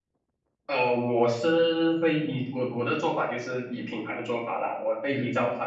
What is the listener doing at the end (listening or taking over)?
listening